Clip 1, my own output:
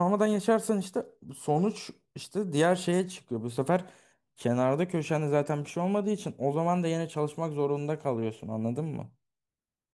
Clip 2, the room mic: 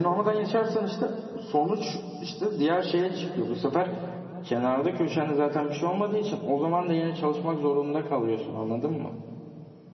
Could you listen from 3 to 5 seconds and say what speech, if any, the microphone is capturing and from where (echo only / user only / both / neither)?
echo only